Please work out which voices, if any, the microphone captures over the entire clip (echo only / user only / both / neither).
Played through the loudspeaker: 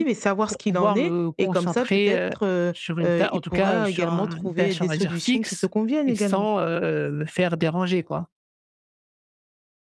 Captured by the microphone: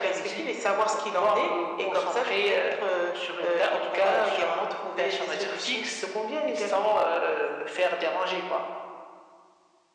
echo only